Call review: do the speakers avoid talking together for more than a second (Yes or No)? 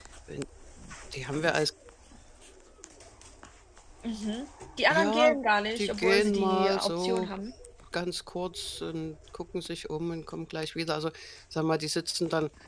No